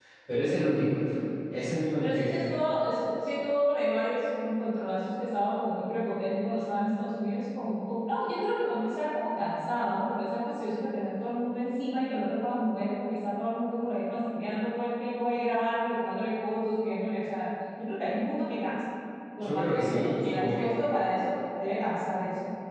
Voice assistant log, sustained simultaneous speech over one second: present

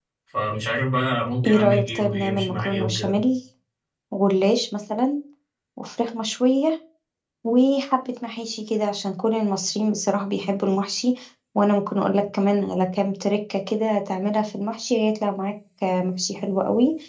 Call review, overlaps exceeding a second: present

